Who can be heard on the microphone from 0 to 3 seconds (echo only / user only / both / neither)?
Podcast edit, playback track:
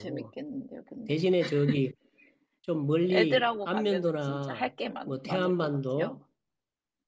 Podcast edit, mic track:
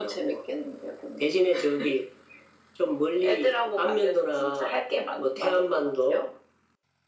echo only